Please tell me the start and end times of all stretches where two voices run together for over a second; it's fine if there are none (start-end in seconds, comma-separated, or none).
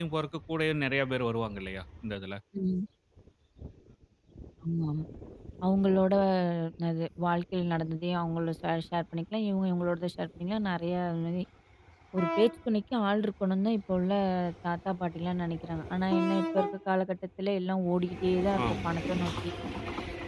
none